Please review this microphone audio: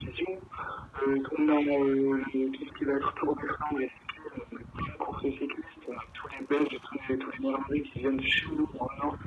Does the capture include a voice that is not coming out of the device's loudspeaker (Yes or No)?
No